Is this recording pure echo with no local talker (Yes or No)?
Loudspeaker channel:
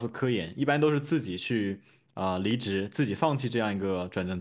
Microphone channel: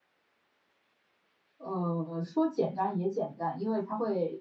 No